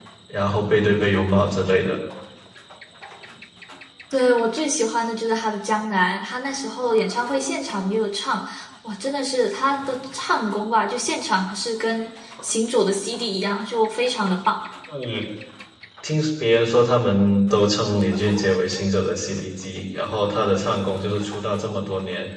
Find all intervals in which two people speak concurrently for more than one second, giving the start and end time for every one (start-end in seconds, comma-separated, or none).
none